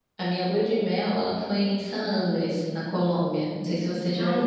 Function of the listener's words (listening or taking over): taking over